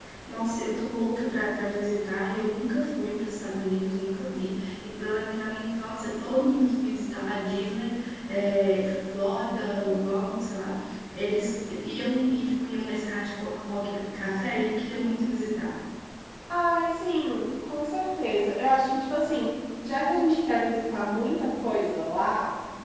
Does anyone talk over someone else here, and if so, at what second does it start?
none

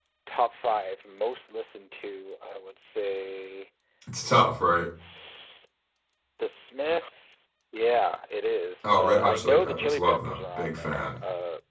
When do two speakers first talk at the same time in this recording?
9 s

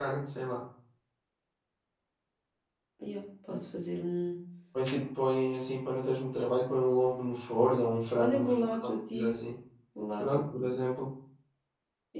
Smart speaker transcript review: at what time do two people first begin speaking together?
8 s

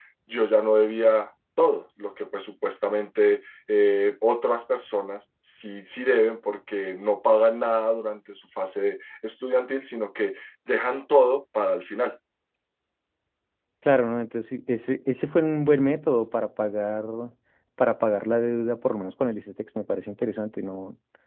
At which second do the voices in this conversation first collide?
none

